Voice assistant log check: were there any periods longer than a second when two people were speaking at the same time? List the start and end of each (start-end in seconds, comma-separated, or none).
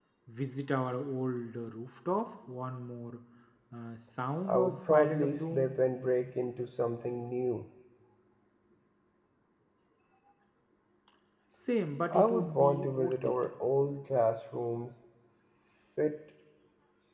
4.5-5.8, 12.1-13.3